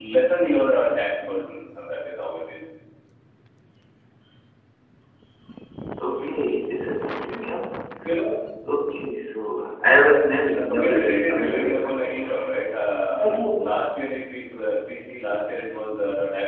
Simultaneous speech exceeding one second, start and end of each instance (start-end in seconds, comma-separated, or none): 10.5-12.2